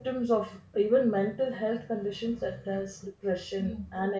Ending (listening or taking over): listening